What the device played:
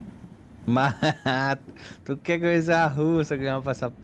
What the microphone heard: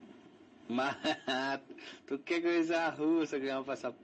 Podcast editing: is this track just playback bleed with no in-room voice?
Yes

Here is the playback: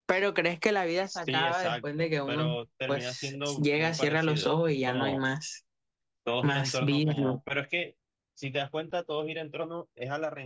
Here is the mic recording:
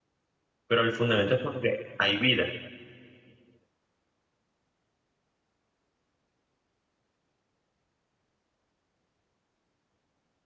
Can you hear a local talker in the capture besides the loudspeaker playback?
Yes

